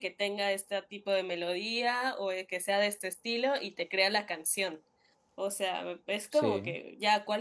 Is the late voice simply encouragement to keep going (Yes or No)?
Yes